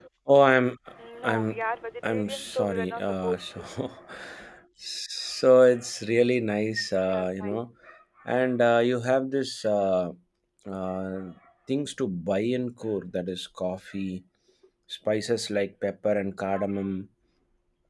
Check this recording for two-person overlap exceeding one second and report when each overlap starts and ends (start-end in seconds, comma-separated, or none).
2.0-3.4